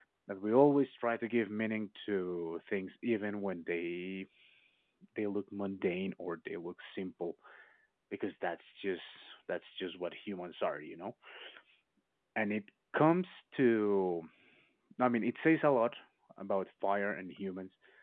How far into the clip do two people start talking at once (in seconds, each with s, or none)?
none